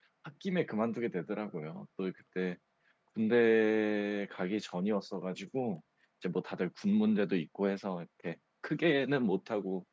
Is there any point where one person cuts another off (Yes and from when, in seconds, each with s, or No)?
No